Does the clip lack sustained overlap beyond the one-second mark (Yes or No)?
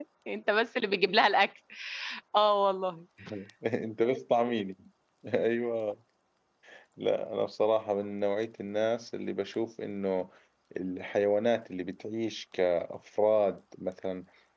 Yes